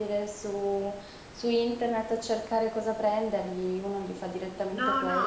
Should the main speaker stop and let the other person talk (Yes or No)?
Yes